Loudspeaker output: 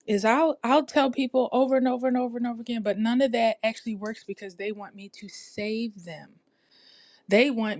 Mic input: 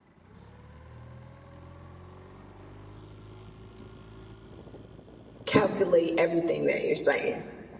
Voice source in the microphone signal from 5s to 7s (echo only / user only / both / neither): user only